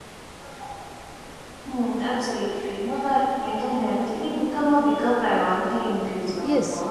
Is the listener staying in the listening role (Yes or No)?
No